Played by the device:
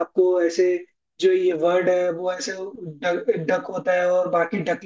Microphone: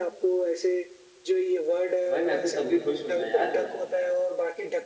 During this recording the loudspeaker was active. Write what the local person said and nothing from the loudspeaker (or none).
तो भाई मैं तो तब भी खुश हूं ना यार